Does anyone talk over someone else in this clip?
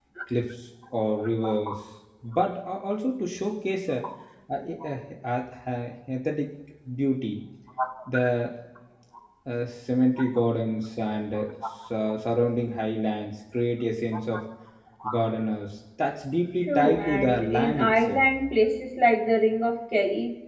Yes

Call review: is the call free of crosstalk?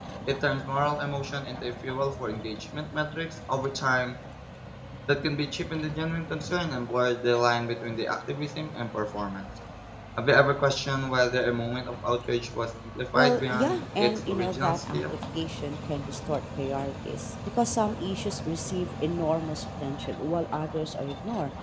No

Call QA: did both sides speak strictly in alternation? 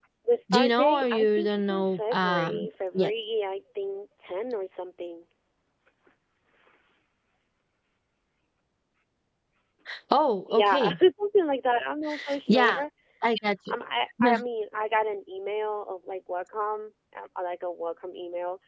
No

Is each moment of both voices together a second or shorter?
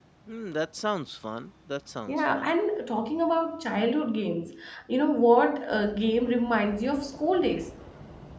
Yes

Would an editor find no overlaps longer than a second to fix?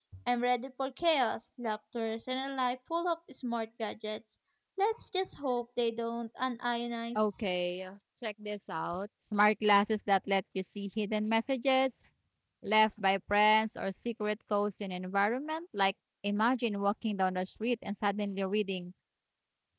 Yes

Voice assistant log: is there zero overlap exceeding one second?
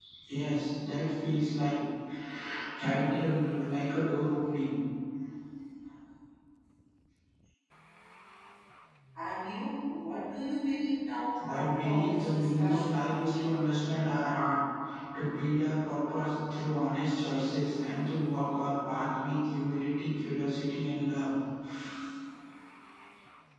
No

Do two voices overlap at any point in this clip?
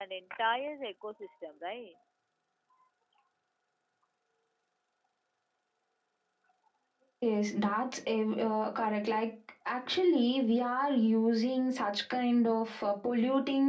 No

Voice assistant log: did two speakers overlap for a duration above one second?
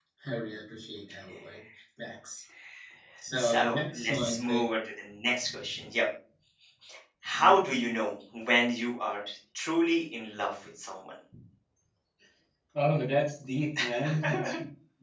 Yes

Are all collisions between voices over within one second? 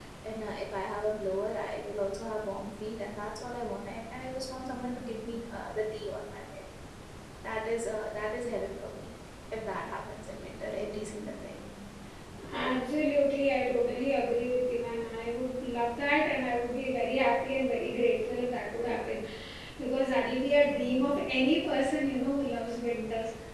Yes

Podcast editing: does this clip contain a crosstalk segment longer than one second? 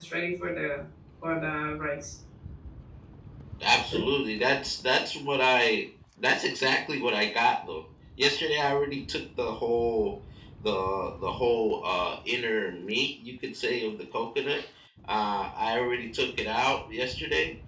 No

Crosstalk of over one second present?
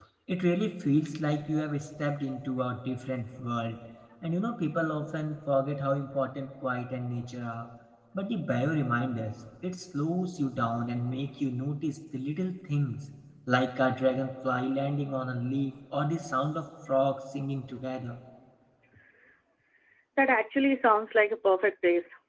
No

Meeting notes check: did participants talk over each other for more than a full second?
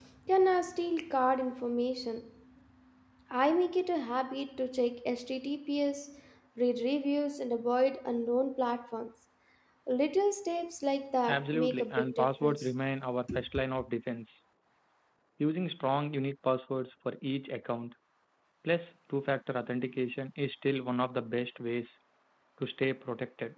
Yes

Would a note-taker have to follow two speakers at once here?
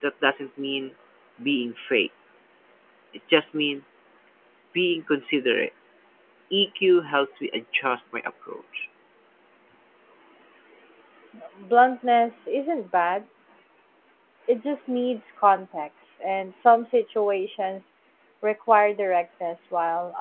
No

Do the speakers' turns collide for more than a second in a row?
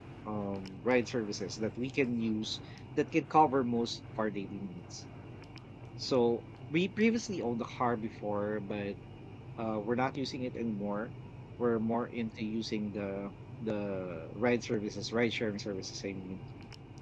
No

